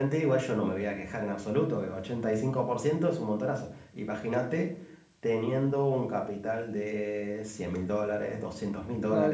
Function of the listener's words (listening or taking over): taking over